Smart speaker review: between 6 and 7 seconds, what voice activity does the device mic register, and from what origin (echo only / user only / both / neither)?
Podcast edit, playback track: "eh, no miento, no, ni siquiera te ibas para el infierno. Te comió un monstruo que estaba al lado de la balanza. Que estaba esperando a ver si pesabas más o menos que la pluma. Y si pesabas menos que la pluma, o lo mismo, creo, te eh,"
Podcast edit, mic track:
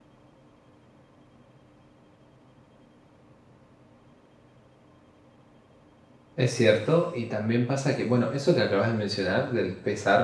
user only